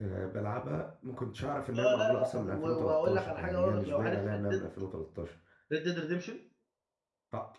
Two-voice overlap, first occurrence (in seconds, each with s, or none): 1.8 s